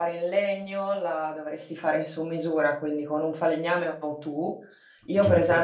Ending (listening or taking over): listening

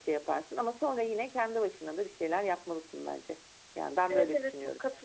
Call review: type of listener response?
taking over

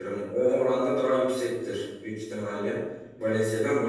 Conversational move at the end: listening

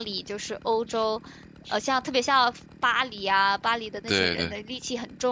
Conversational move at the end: listening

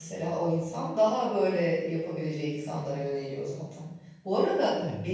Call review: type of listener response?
listening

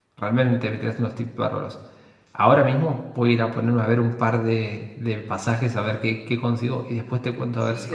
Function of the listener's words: taking over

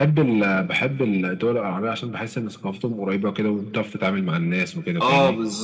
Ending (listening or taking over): taking over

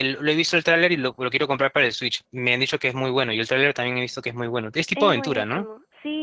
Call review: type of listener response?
taking over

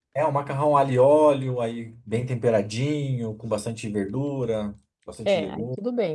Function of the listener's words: taking over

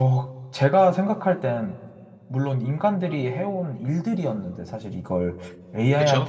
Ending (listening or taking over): listening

